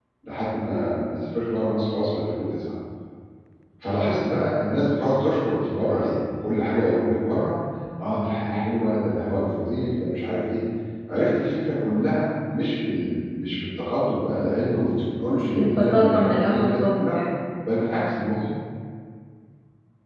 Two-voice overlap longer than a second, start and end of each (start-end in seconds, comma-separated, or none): 15.6-17.2